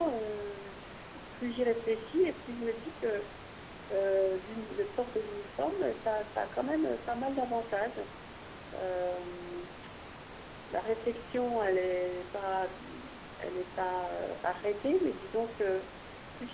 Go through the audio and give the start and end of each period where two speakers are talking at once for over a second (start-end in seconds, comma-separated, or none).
none